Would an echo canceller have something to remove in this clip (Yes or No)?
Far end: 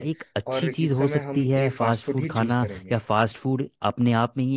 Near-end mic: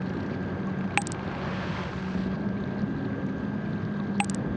No